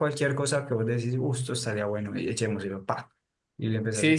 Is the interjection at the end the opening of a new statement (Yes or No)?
Yes